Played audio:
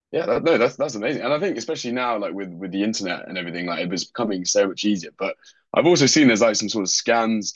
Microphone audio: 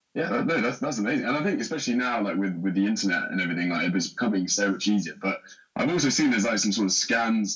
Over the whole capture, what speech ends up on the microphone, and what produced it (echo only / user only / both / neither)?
echo only